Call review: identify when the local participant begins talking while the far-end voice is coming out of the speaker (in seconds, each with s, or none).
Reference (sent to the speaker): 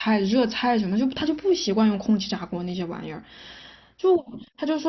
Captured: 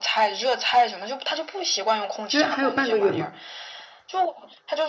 2.2 s